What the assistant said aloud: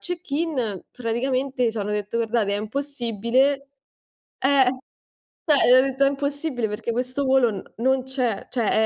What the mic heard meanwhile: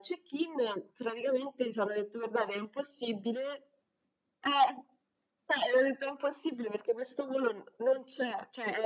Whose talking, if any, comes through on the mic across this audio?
echo only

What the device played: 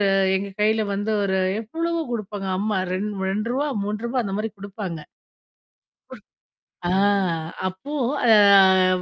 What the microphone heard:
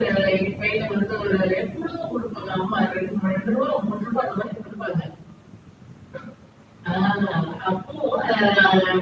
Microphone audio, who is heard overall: echo only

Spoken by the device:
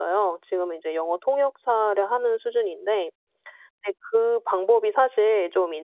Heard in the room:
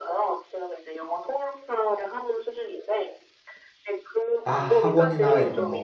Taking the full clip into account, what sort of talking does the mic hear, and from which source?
both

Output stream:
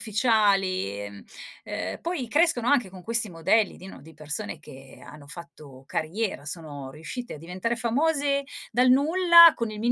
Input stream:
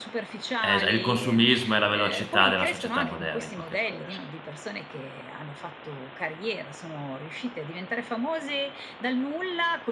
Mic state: both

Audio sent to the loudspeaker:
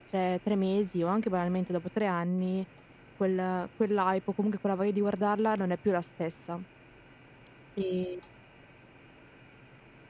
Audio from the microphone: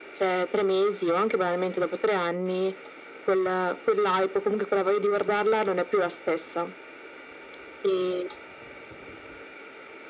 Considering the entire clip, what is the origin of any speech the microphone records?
echo only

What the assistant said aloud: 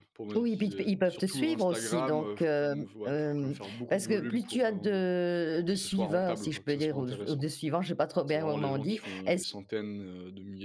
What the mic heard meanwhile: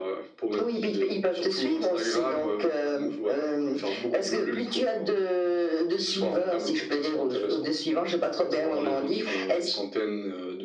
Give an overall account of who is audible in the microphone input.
echo only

